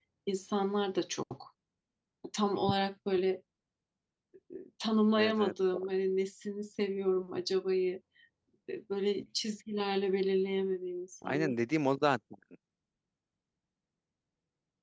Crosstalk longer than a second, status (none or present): none